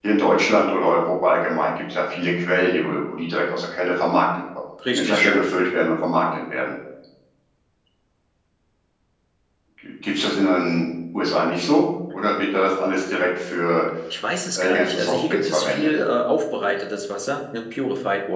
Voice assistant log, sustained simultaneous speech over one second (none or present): present